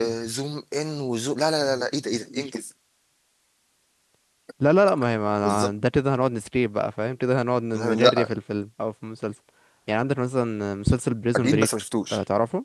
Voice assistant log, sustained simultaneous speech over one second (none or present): none